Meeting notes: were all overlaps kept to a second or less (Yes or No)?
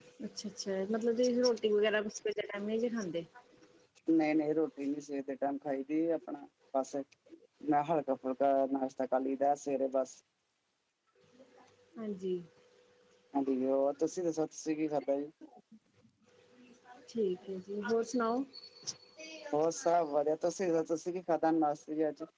Yes